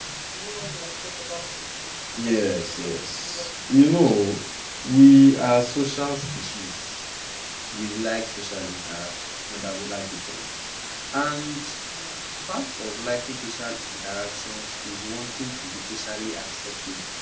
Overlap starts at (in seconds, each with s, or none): 2.2 s